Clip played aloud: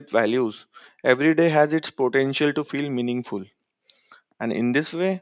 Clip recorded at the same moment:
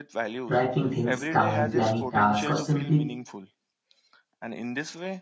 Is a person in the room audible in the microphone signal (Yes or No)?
Yes